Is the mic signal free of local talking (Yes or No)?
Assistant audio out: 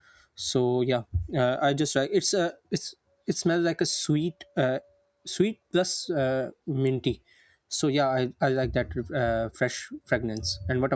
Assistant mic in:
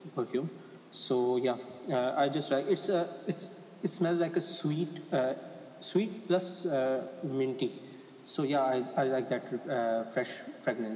Yes